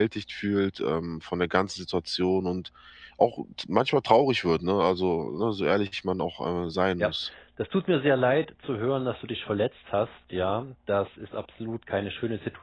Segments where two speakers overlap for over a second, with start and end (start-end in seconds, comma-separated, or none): none